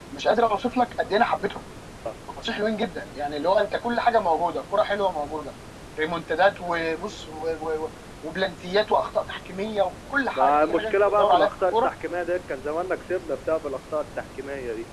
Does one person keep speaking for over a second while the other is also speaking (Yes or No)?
Yes